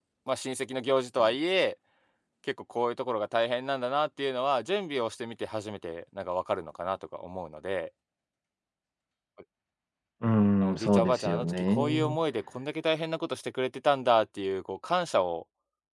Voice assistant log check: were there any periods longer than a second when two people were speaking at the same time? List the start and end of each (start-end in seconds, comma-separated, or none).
10.8-12.2